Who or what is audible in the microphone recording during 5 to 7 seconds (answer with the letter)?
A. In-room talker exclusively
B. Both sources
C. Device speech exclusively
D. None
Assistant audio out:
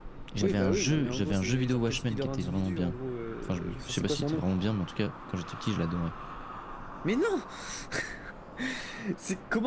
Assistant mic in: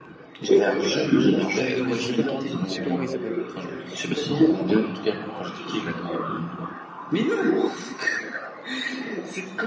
C